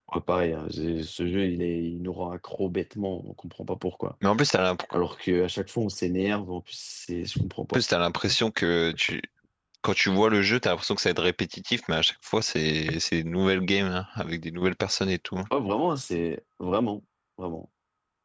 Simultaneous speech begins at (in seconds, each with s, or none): none